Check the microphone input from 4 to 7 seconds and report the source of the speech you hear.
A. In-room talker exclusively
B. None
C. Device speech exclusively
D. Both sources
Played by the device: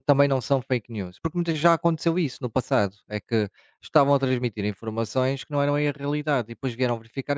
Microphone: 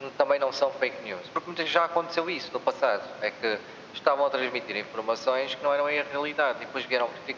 C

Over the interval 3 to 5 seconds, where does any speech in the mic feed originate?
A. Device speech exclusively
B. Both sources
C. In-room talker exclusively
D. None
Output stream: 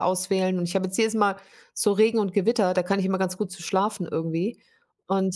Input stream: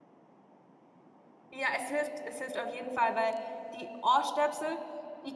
C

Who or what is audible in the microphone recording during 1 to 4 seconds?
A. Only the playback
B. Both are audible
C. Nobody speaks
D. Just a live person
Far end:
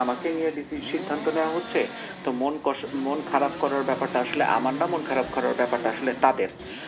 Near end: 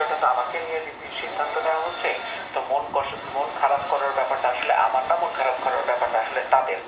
A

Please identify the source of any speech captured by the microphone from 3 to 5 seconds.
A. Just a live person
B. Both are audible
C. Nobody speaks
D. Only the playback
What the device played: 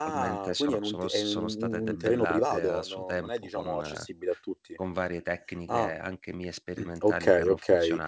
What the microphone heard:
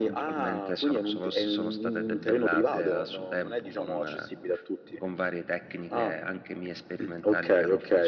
D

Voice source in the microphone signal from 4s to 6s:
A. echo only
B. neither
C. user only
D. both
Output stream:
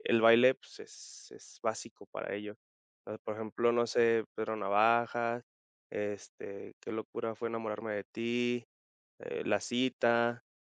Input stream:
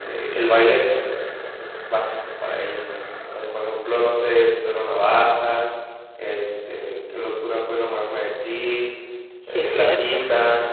A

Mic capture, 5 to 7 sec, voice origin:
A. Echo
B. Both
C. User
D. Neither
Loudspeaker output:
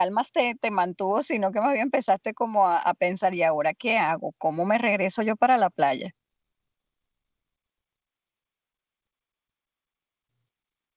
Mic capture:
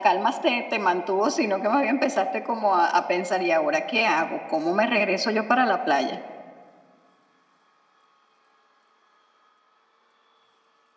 A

